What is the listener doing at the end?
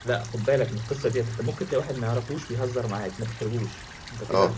taking over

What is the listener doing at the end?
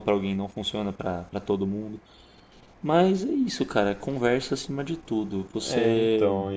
taking over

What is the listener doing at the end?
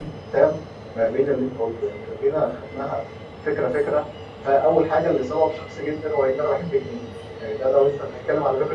listening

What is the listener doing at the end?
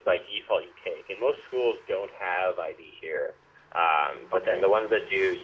listening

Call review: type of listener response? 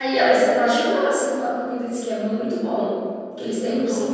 listening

